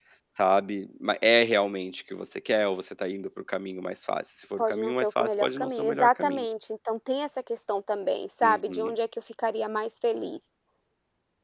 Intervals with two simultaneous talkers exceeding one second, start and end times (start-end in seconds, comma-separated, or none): 4.6-6.5